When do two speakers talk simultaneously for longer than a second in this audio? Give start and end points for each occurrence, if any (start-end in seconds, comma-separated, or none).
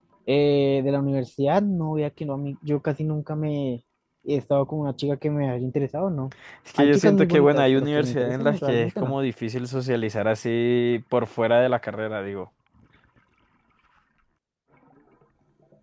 6.8-9.2